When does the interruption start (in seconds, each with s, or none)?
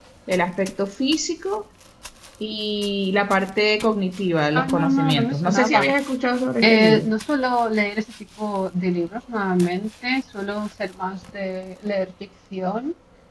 4.5 s